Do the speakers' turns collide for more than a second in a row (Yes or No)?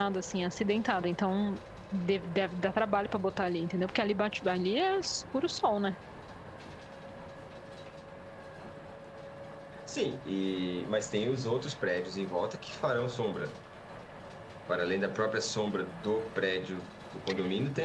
No